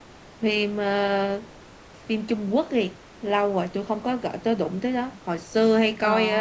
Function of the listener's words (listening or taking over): listening